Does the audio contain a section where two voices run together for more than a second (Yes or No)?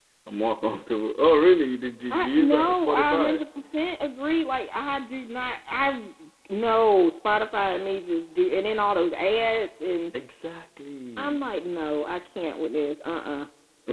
Yes